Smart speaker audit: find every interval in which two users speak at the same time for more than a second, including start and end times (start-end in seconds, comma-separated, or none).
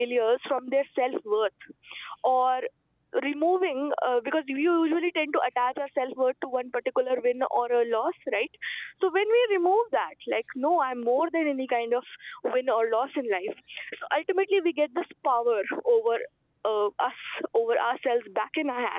none